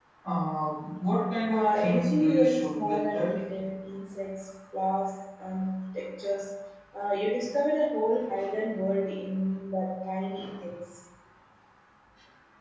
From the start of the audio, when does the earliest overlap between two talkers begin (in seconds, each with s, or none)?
1.5 s